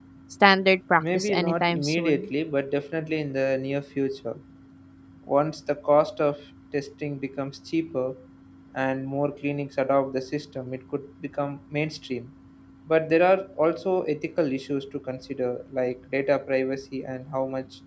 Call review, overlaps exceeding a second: present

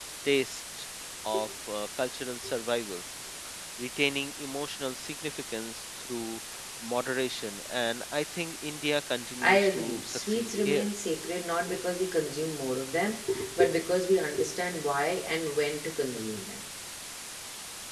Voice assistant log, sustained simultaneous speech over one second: present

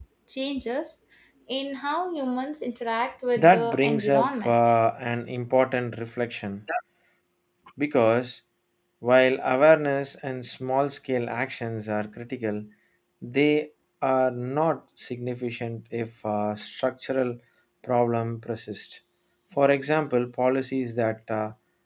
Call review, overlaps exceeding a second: present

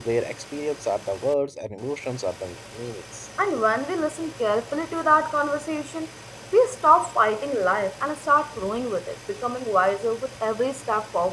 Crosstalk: none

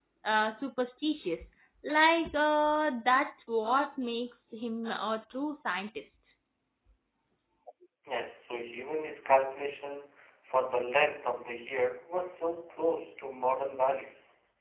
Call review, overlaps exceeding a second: none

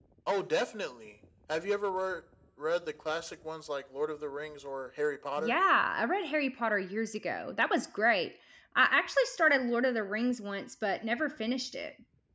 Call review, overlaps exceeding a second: none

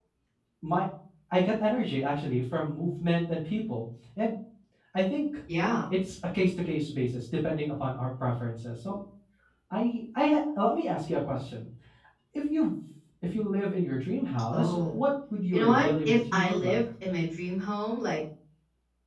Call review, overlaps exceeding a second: present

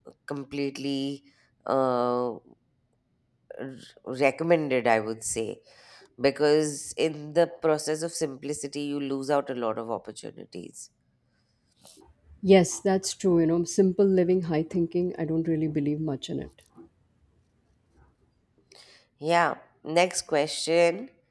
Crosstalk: none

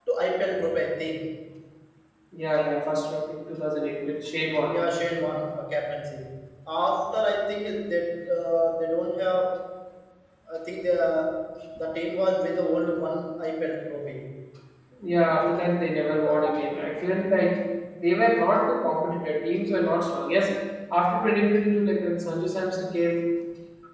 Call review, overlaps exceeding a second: none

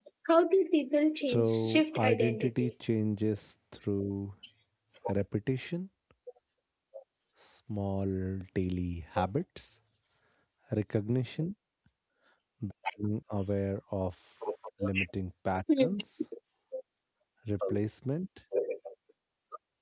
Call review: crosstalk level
present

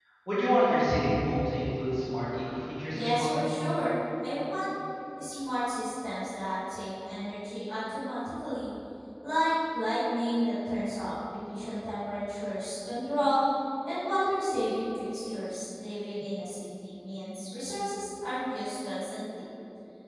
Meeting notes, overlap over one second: none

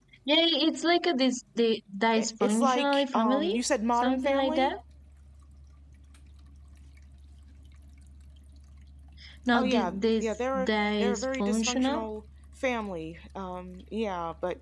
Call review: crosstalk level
present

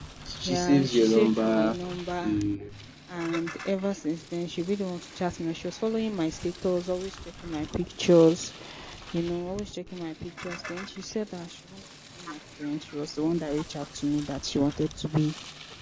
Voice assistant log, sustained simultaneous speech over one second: present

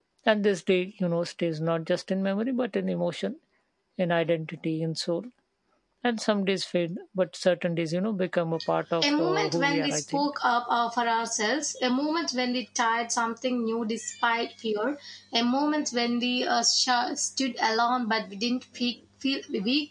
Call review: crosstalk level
present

